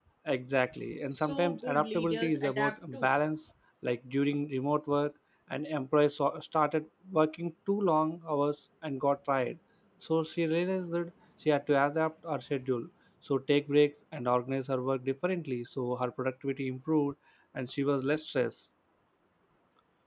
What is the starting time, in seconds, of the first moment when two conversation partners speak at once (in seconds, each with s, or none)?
1.1 s